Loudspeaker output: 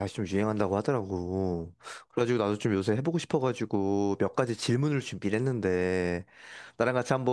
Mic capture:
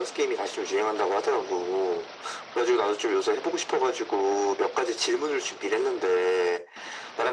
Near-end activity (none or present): none